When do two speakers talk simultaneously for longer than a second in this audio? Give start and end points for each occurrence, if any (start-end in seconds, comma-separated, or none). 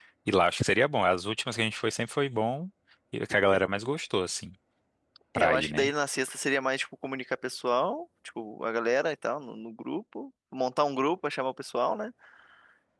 none